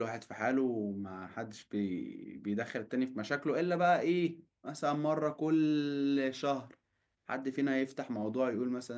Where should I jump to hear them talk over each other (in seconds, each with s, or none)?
none